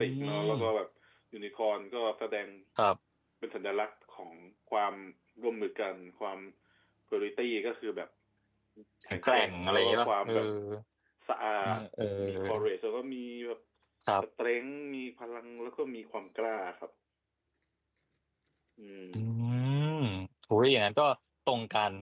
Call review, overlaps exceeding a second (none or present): present